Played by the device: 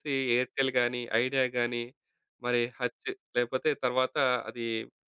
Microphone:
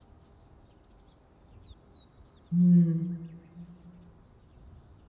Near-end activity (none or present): present